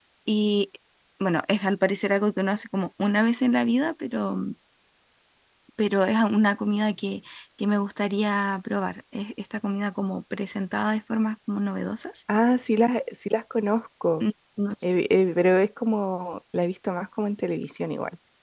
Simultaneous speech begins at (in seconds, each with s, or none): none